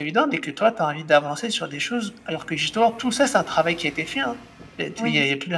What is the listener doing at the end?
listening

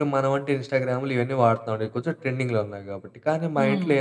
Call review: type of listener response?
listening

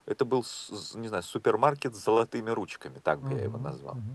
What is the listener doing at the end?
taking over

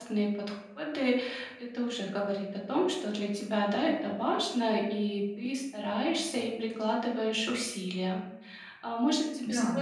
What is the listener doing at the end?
listening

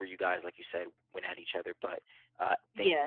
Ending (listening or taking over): taking over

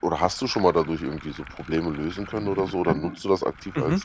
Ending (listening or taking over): taking over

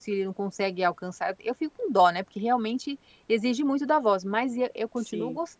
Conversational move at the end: listening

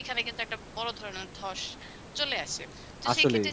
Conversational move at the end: listening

